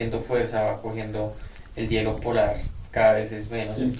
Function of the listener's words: listening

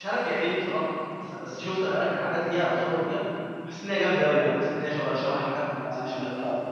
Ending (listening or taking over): taking over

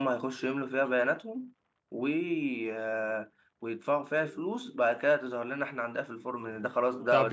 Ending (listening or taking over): taking over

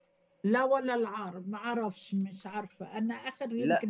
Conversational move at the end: taking over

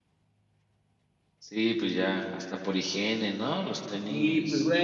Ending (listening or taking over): taking over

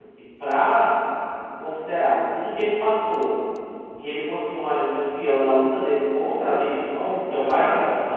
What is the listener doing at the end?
listening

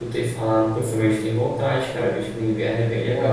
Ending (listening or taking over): taking over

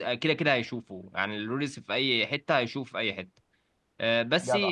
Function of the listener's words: listening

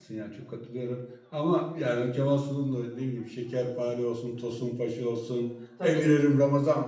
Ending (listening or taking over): listening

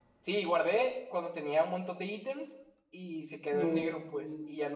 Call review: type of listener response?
listening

